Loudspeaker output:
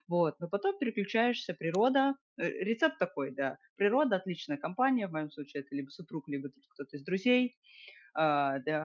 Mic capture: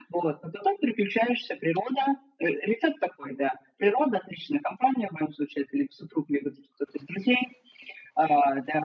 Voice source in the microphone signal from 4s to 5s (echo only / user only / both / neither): echo only